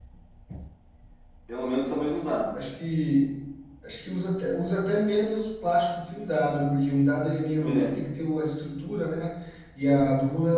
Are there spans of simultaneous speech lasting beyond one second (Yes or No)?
No